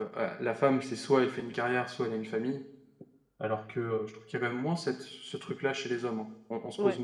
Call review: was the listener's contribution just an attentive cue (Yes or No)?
No